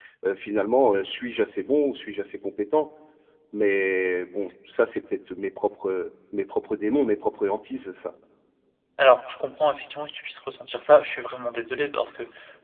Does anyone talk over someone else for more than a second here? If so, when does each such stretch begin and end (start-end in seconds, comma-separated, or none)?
none